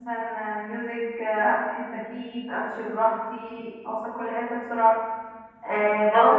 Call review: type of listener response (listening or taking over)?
listening